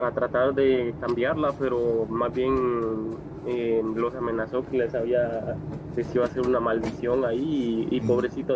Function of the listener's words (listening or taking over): listening